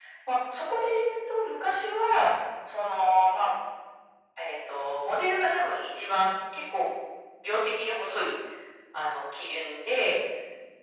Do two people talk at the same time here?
No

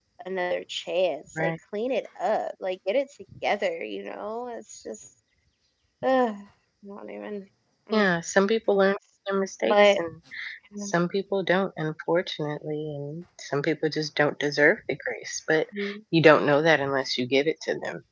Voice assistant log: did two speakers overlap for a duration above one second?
No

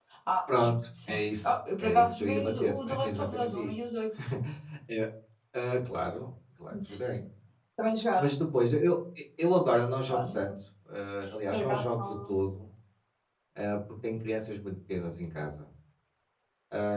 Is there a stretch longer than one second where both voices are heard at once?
Yes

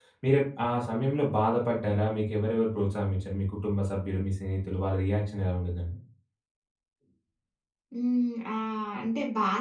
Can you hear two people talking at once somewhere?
No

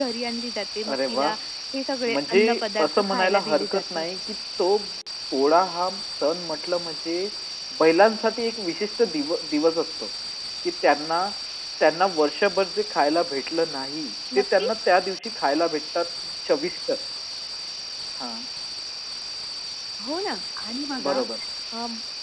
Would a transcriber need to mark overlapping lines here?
Yes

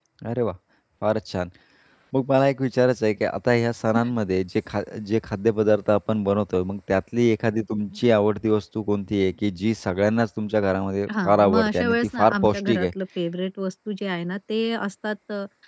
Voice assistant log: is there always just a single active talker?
No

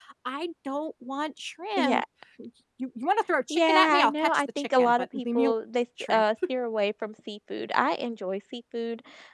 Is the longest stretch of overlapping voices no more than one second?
No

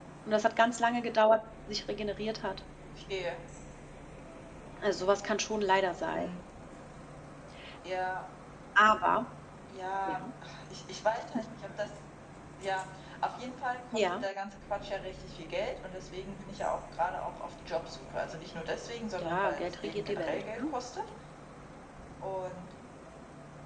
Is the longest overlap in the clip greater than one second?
Yes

